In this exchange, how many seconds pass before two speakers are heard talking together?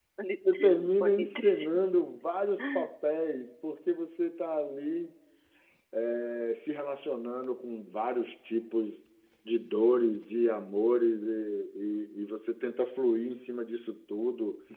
0.5 s

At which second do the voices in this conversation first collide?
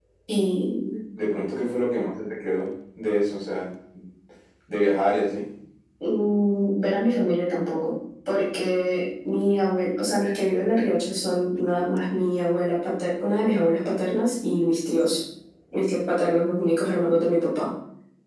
none

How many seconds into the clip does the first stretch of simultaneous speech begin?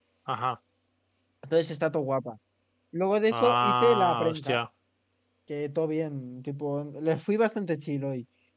3.3 s

